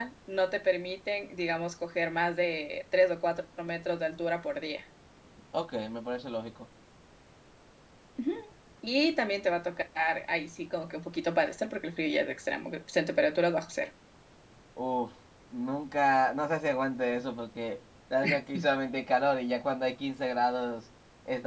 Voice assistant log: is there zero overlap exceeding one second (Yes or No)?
Yes